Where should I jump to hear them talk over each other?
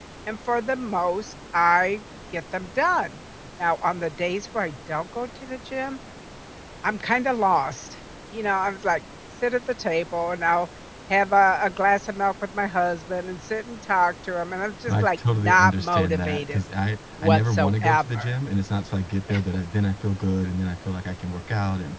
14.9 s

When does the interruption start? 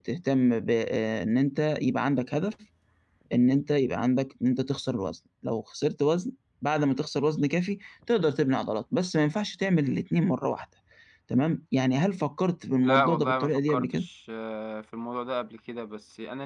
12.8 s

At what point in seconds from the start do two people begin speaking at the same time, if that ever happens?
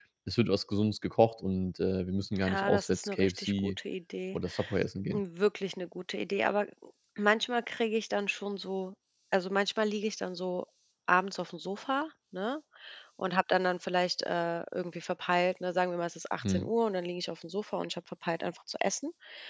2.4 s

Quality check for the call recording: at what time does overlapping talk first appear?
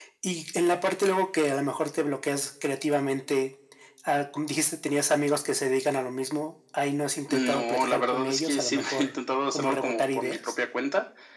7.3 s

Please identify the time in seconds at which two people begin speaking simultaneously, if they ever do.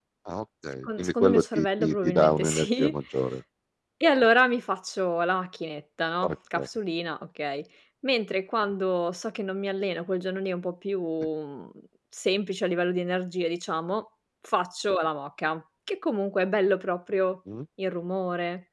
0.8 s

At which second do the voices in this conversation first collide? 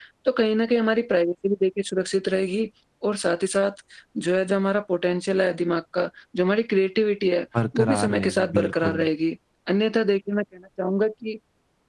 7.5 s

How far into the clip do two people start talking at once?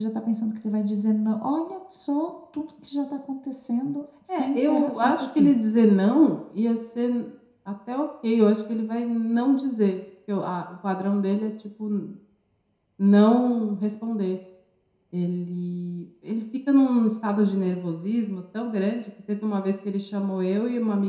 4.3 s

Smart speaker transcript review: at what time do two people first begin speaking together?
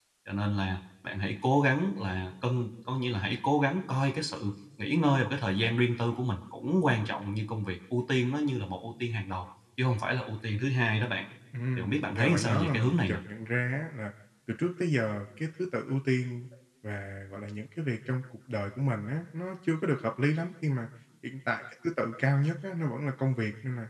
11.8 s

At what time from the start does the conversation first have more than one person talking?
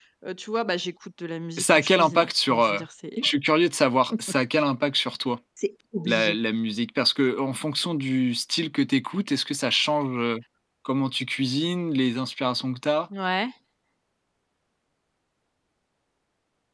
1.6 s

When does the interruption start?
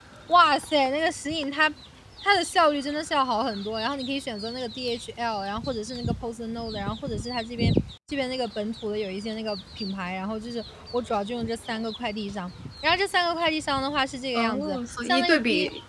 14.4 s

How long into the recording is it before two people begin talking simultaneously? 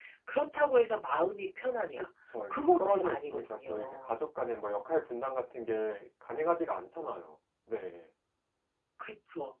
2.5 s

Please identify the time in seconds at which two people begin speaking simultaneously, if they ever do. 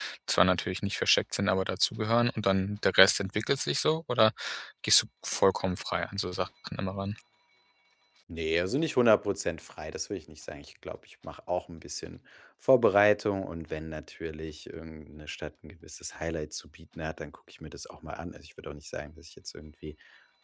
none

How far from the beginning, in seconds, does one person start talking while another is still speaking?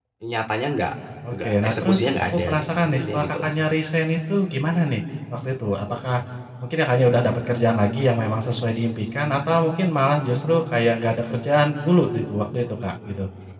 1.3 s

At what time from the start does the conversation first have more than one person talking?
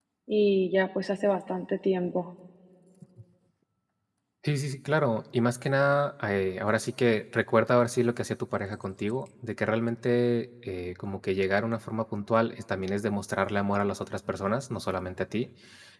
none

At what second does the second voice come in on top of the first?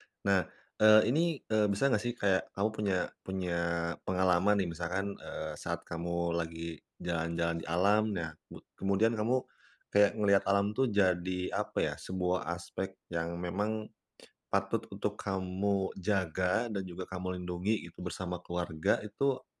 none

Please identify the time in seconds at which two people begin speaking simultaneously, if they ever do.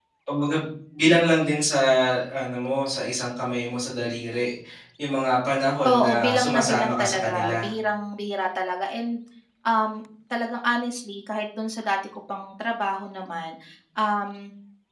5.8 s

